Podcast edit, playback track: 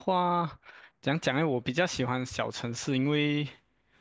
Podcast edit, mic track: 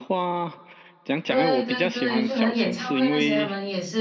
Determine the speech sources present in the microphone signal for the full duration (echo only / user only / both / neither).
both